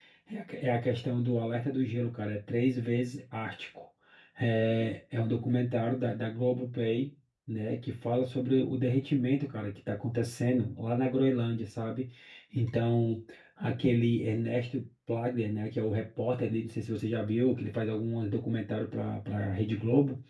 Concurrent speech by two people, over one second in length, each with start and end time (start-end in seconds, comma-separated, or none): none